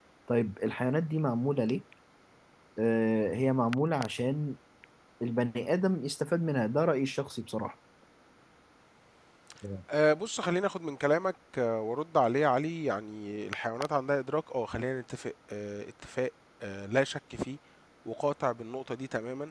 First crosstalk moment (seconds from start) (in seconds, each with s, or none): none